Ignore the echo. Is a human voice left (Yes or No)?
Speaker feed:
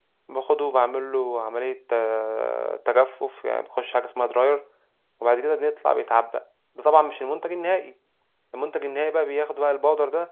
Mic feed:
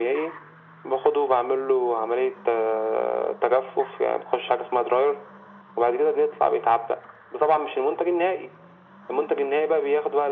No